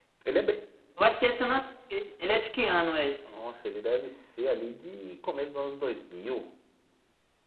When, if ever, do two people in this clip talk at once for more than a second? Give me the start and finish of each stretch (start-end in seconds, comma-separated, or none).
none